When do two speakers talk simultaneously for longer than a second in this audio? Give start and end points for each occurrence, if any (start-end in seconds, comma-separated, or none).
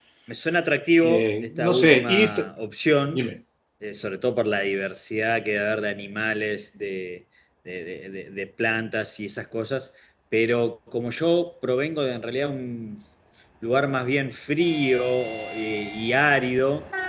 1.0-2.3